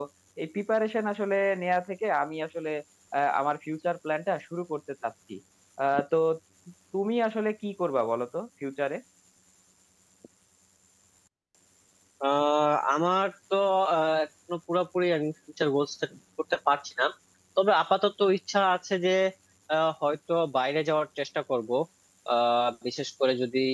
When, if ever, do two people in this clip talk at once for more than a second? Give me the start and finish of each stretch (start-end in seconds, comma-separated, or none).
none